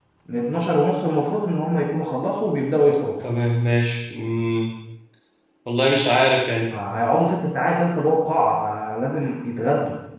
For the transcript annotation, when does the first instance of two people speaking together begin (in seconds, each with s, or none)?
none